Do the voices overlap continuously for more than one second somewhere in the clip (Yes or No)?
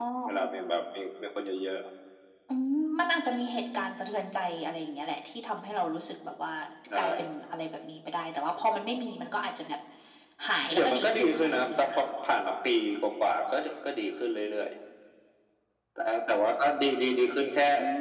Yes